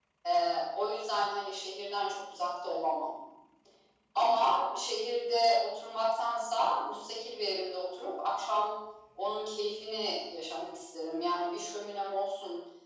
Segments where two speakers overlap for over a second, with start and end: none

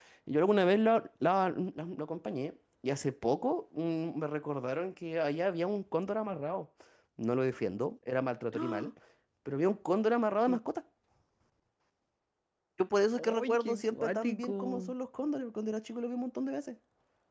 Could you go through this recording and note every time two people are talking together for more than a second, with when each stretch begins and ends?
13.2-14.9

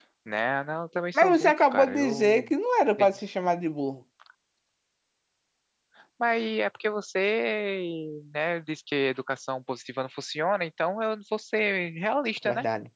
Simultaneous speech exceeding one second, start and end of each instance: 1.1-2.5

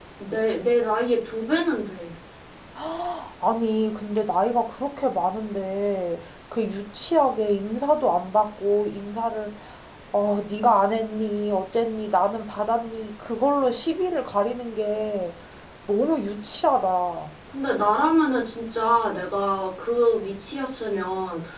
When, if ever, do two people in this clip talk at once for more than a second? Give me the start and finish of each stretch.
none

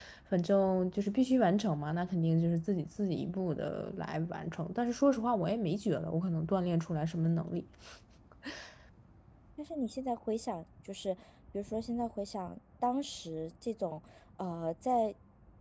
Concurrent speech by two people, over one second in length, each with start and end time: none

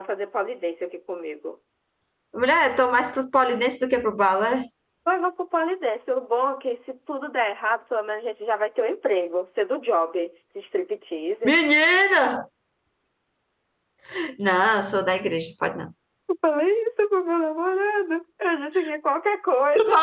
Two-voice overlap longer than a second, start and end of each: none

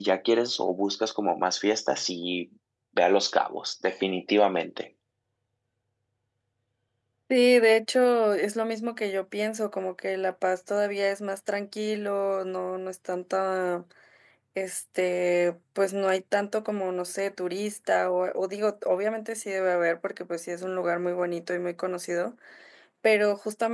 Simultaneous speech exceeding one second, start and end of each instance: none

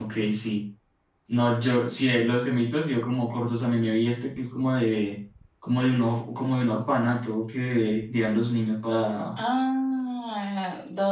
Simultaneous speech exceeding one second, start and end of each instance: none

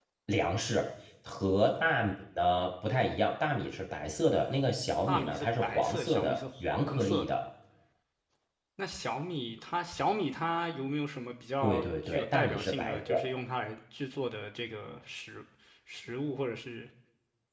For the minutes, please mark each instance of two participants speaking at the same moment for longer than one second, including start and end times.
5.1-7.3, 11.6-13.2

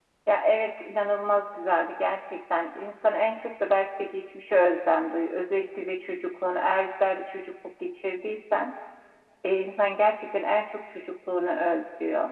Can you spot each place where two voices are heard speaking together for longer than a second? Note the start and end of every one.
none

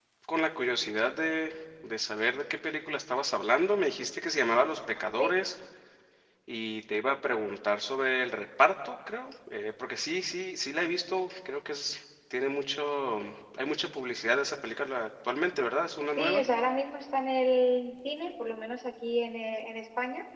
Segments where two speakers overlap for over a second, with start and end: none

